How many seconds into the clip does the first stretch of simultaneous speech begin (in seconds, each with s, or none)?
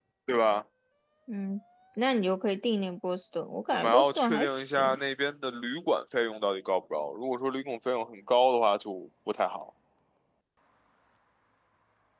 3.7 s